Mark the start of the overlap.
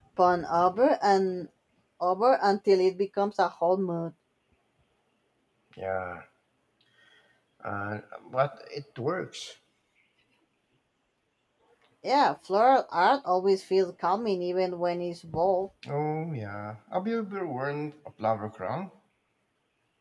none

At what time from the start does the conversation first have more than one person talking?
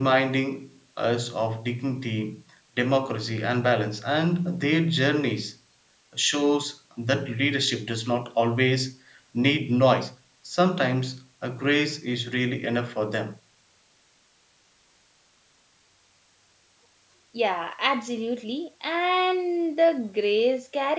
none

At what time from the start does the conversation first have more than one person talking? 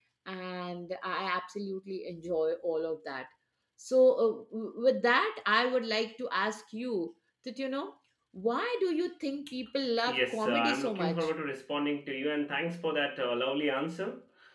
10.1 s

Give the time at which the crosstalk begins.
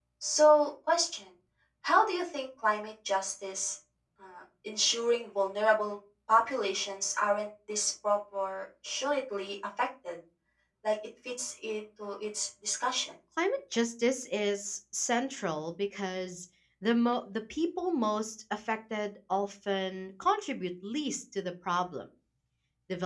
none

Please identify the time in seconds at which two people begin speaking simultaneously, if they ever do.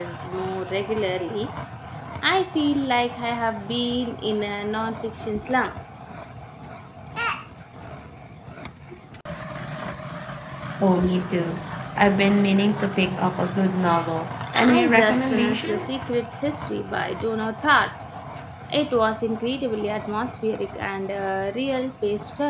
14.4 s

